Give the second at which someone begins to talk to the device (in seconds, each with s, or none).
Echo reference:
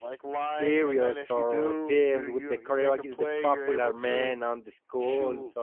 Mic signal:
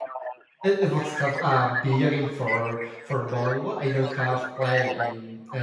0.6 s